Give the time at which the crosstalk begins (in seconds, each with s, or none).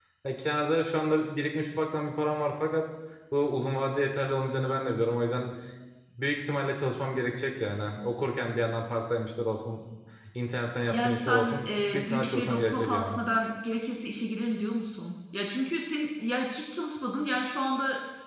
10.9 s